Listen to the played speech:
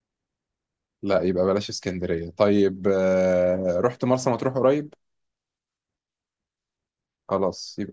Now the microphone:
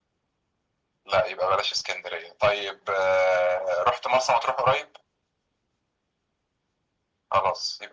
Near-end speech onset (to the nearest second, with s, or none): none